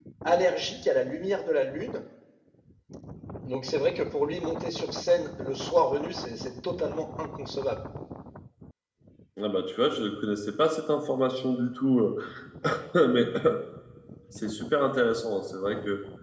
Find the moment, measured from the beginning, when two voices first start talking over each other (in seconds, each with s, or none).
none